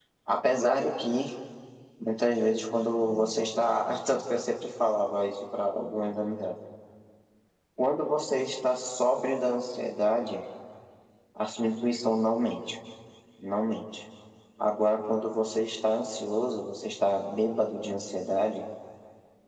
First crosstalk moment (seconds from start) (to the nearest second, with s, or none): none